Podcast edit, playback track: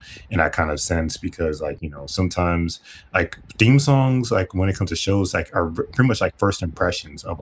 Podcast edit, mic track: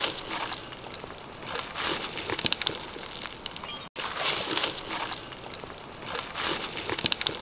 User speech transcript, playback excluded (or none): none